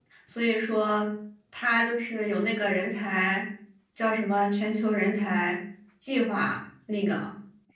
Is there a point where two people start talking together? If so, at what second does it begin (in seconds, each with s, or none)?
none